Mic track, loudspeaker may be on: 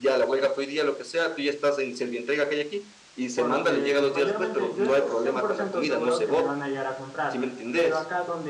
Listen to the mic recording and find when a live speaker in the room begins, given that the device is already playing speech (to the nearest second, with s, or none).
3 s